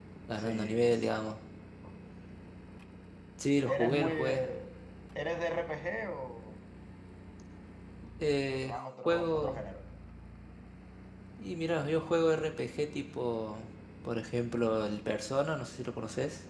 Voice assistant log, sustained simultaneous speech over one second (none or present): present